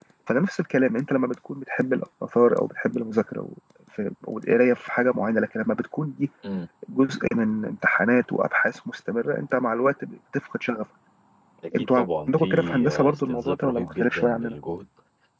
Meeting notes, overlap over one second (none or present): present